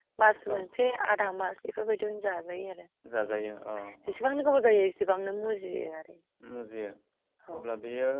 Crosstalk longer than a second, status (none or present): none